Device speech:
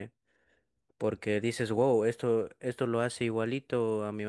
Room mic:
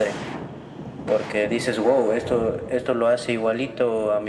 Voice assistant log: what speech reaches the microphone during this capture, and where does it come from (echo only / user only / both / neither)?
echo only